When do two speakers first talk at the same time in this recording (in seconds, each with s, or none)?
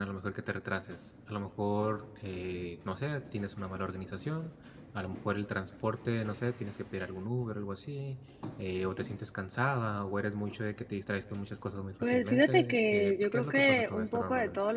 12.0 s